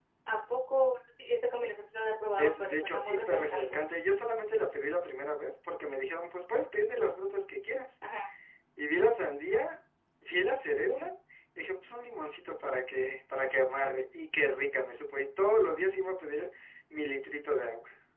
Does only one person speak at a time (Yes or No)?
No